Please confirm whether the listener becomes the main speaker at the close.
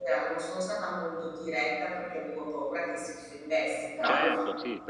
Yes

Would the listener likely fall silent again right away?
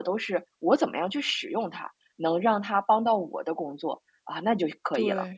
No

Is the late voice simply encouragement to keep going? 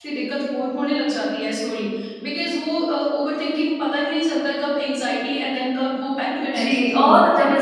No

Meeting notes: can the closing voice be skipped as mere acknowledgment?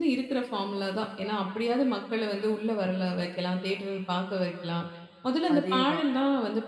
Yes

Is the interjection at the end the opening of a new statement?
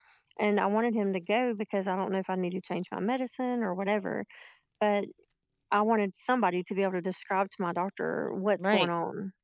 Yes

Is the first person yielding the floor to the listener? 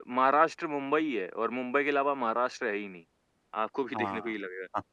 Yes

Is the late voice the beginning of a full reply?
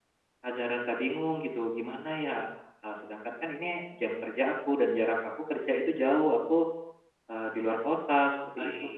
Yes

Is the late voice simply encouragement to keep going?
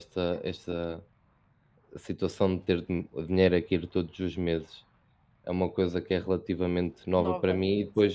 Yes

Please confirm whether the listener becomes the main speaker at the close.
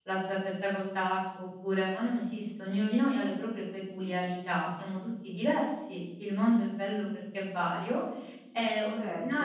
No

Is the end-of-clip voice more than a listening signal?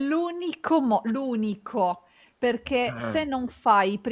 No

